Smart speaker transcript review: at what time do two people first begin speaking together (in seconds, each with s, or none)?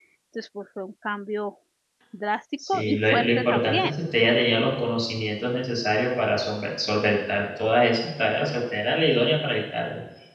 2.7 s